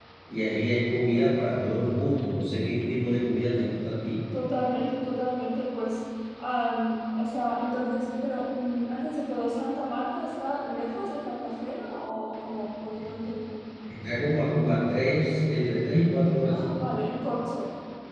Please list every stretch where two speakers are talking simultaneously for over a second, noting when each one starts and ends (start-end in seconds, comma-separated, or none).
none